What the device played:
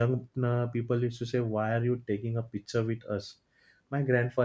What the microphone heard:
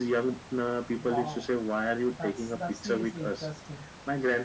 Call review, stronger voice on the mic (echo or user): echo